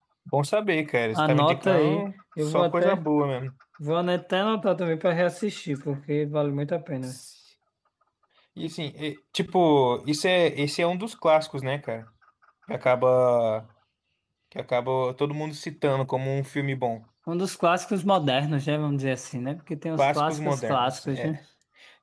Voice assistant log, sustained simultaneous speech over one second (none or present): present